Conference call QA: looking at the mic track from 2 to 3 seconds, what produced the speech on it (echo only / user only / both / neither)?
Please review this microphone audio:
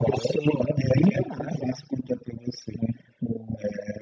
echo only